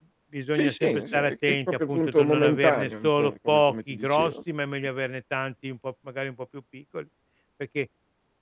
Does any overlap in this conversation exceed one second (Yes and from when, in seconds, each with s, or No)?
Yes, from 0.6 s